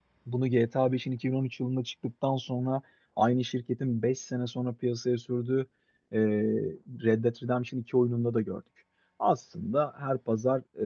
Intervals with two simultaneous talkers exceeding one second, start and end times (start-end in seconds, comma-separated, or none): none